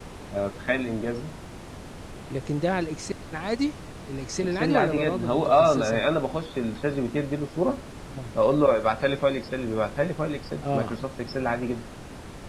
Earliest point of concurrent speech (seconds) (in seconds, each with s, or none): 4.4 s